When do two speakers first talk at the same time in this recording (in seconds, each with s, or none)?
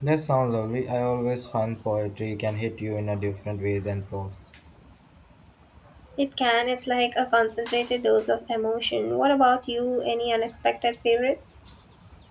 none